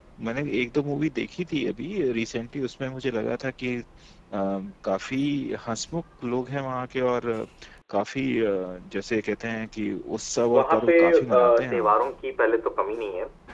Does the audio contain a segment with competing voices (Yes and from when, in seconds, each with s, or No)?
Yes, from 10.5 s